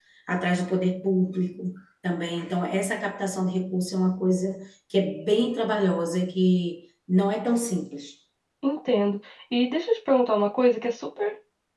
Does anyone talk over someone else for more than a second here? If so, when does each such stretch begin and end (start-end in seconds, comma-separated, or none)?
none